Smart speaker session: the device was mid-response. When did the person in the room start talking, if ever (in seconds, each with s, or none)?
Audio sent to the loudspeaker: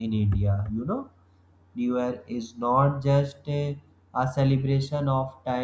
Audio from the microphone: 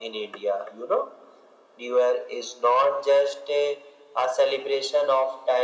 none